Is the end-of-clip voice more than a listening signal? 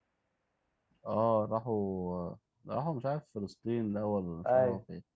Yes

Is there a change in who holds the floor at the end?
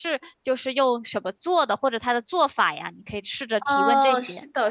Yes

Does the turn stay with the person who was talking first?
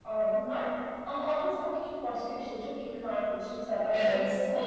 Yes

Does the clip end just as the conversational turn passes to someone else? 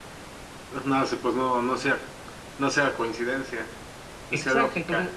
Yes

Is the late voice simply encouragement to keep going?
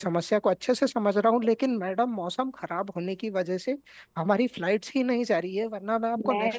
No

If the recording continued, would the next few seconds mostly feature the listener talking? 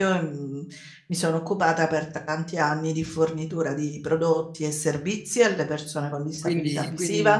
Yes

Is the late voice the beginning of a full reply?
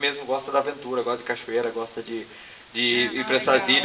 Yes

